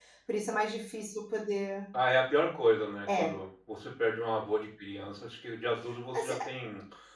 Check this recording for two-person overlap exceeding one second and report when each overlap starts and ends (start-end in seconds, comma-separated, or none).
none